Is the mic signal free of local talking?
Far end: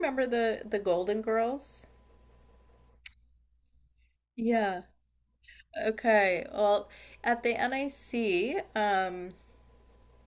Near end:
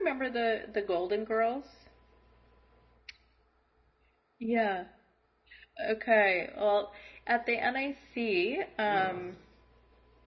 No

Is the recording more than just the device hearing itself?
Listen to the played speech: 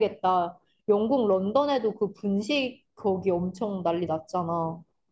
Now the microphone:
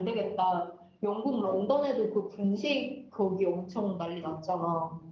Yes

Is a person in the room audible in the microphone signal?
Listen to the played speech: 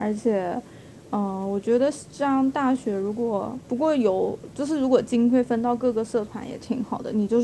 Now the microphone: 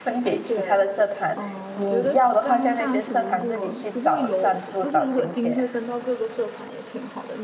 Yes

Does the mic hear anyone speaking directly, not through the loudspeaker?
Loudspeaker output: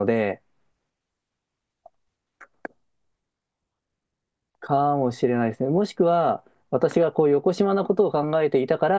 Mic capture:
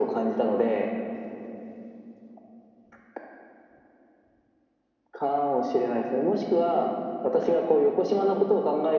No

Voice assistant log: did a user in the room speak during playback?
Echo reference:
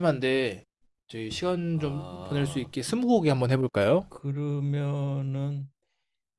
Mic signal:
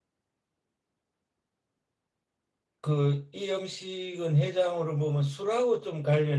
Yes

